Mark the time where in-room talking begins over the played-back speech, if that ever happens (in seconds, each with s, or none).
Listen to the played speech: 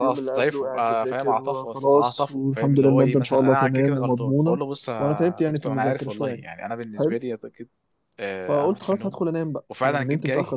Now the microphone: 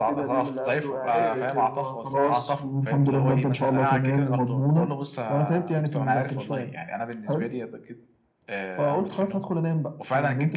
1.1 s